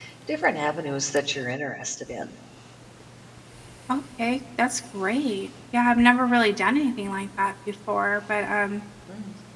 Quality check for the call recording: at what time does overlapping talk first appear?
none

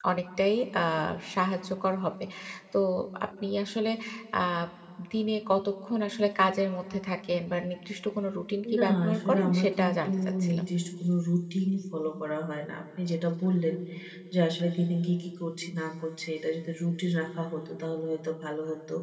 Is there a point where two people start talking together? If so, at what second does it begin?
8.6 s

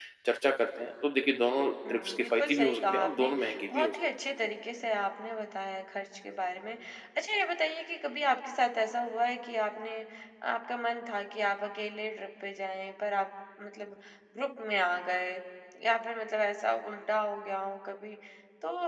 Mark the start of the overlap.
1.8 s

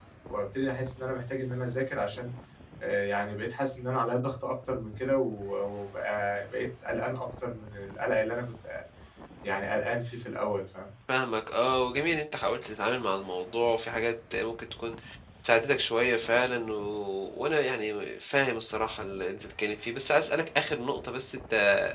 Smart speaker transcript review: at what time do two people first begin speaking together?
none

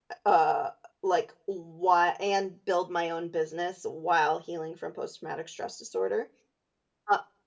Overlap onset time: none

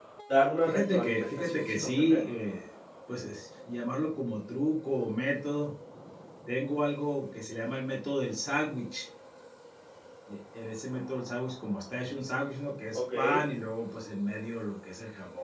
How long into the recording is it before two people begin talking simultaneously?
0.7 s

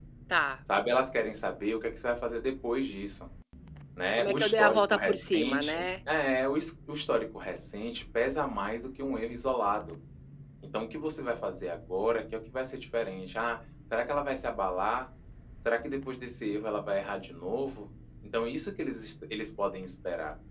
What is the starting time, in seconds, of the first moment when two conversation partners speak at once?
4.2 s

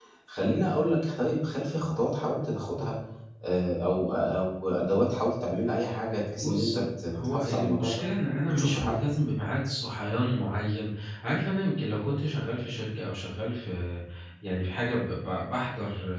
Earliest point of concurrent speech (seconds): 6.4 s

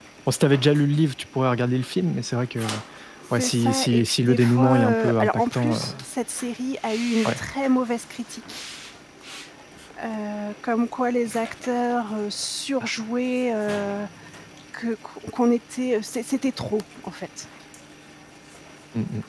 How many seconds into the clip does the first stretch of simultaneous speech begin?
3.4 s

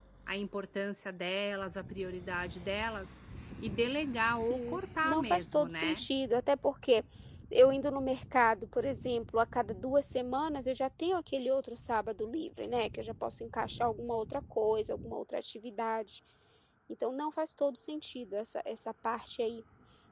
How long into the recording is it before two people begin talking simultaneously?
4.2 s

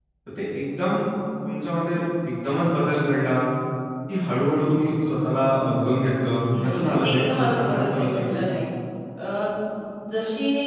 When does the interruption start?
6.5 s

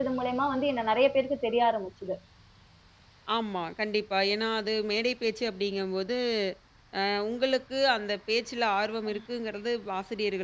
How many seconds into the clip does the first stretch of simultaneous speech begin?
none

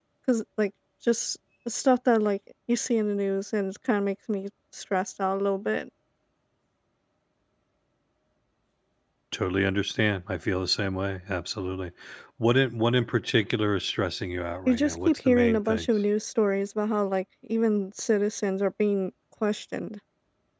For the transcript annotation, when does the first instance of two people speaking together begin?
14.7 s

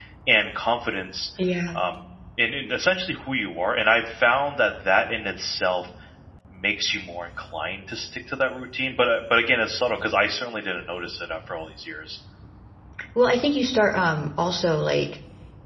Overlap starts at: none

